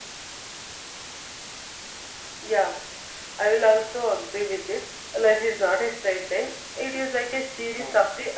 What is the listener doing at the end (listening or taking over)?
listening